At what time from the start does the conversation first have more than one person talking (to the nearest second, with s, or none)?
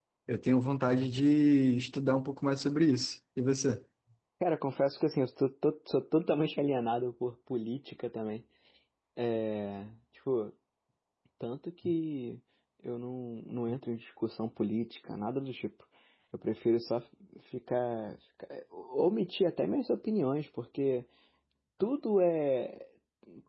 none